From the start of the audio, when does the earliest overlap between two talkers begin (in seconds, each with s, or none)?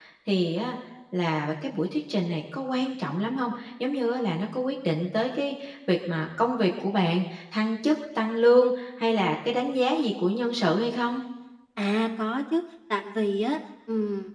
none